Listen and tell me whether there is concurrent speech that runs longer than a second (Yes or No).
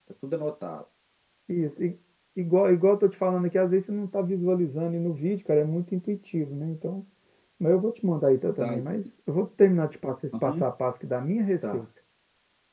No